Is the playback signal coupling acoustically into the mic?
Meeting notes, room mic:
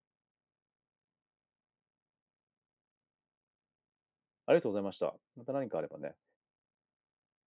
No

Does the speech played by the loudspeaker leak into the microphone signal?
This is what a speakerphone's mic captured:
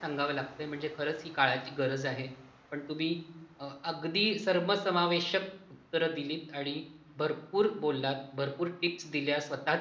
No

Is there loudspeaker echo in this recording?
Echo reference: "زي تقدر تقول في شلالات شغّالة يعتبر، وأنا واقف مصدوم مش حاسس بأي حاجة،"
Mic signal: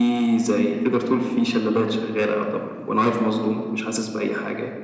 Yes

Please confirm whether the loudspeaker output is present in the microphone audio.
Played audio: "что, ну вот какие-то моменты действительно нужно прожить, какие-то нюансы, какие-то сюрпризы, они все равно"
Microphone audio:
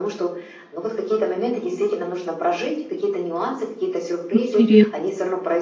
Yes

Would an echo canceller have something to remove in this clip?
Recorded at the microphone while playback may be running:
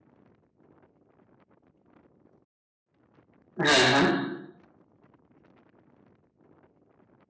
No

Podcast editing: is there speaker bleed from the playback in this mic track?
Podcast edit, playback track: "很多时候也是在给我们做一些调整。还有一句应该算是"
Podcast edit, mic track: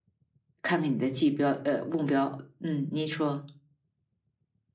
No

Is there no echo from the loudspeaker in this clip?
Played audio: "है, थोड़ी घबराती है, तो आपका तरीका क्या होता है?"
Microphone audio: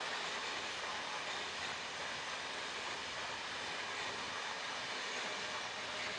Yes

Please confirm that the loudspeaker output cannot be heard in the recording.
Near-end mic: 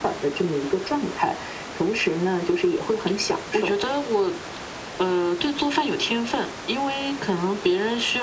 No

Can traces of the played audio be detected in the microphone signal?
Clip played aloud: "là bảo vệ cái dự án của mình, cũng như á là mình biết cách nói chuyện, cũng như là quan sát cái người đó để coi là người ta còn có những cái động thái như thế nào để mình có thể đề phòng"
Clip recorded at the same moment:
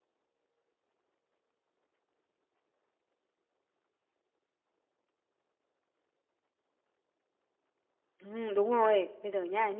No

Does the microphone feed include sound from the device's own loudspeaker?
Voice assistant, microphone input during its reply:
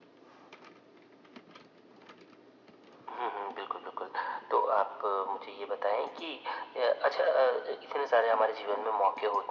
Yes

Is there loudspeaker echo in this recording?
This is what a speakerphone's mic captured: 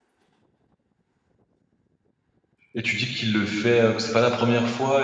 No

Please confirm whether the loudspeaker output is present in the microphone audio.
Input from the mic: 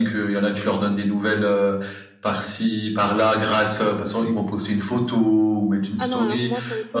Yes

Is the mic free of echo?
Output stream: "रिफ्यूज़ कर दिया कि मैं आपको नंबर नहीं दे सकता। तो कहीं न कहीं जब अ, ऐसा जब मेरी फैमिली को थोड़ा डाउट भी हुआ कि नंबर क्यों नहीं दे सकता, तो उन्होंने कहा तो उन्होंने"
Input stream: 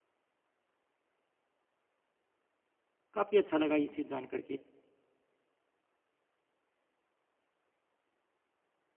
Yes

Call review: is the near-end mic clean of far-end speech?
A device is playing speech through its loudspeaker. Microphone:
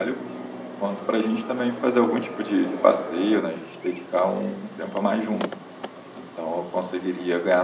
Yes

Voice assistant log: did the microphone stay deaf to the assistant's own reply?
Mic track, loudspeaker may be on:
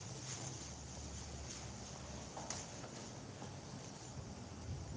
Yes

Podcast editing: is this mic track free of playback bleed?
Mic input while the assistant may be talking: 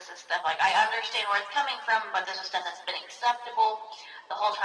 No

